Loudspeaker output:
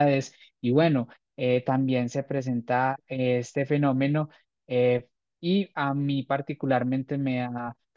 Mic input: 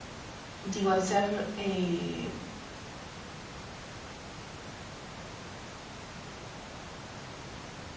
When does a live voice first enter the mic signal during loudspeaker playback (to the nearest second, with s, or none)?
1 s